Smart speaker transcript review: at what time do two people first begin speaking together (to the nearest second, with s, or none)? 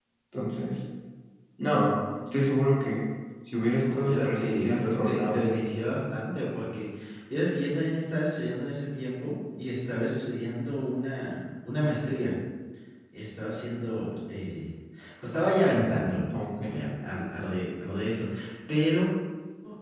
4 s